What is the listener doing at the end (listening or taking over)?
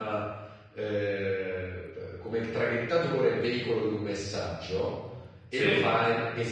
listening